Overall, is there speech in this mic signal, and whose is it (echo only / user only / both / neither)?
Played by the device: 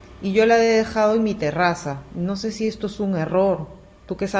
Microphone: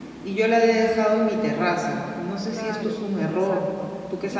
both